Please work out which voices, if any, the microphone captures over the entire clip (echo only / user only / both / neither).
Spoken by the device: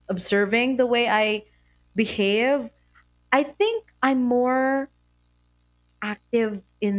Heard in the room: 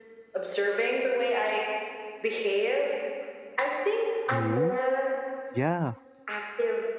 both